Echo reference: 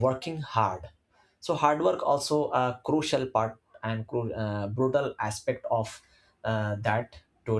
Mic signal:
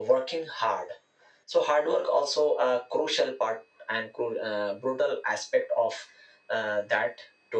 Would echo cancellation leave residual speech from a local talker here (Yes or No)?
No